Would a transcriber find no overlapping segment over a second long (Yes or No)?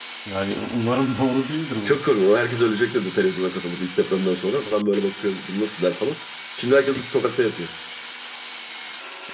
Yes